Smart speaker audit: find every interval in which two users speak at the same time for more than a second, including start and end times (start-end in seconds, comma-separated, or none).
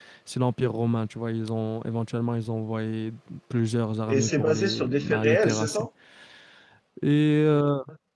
4.1-5.8